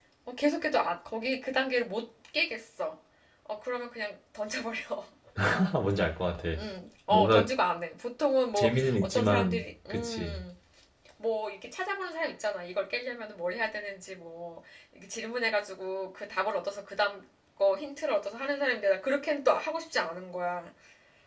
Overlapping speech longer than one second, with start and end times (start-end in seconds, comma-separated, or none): 8.6-10.4